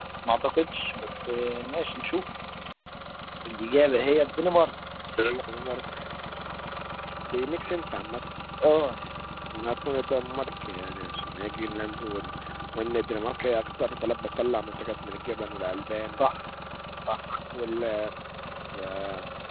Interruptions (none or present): none